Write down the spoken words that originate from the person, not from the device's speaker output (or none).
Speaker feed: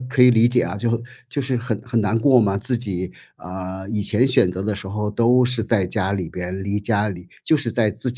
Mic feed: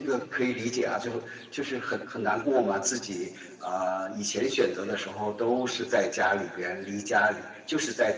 none